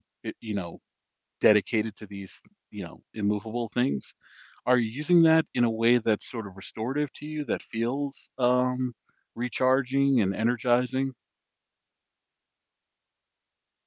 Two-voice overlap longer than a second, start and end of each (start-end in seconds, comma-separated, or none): none